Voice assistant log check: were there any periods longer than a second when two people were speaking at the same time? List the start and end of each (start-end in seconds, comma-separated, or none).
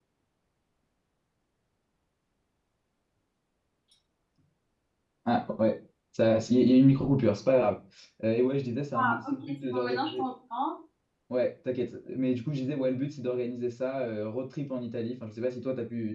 8.9-10.2